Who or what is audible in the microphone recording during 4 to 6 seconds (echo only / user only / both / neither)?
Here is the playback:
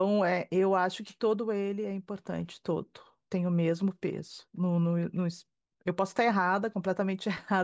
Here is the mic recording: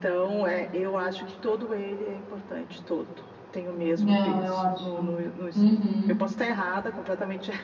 both